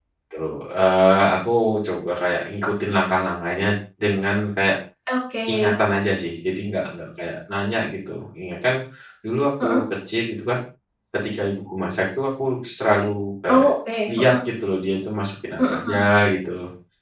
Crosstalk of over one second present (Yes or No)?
No